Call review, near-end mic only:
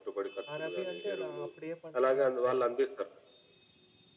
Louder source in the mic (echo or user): echo